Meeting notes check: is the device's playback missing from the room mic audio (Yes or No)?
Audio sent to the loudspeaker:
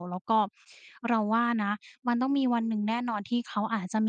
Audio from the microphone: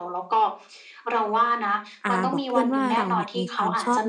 No